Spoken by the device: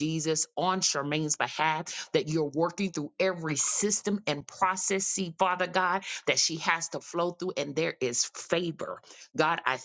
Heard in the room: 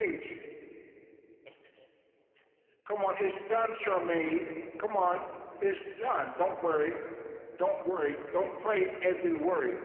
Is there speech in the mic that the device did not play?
Yes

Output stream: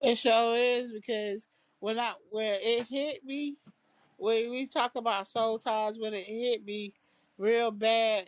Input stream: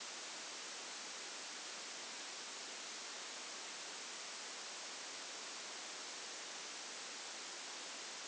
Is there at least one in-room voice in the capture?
No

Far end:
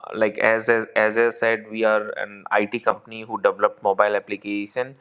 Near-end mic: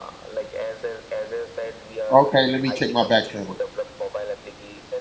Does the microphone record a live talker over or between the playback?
Yes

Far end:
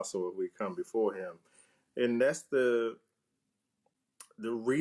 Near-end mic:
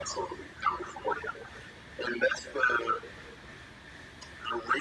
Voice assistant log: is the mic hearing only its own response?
Yes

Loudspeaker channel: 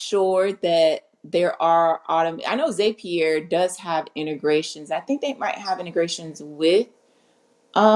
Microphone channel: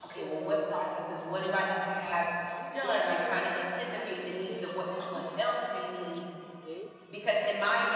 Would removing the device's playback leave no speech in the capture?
No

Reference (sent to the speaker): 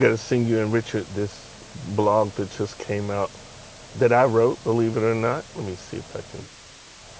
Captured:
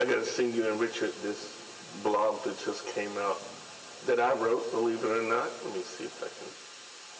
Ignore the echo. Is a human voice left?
No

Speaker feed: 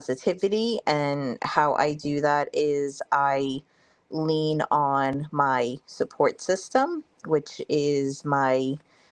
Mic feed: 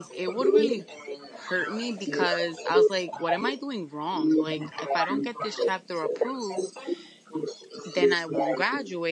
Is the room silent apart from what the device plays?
No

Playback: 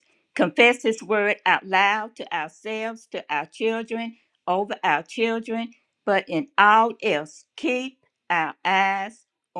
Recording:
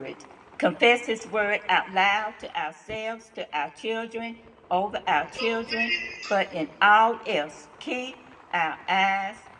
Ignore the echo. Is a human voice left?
Yes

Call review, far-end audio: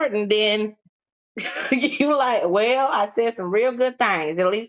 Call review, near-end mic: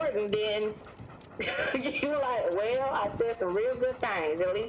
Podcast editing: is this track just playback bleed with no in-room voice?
Yes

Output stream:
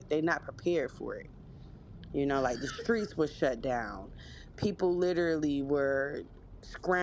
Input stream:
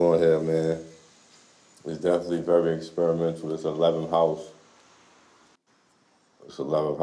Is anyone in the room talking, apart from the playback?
Yes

